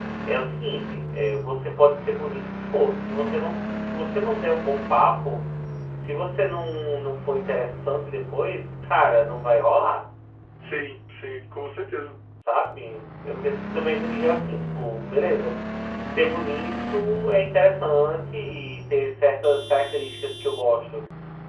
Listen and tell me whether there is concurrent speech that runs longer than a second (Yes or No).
No